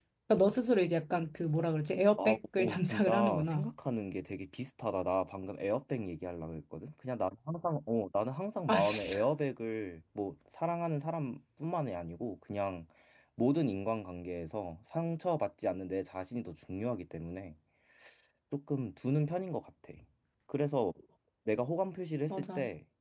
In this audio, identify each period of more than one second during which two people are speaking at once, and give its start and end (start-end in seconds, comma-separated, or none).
2.2-3.7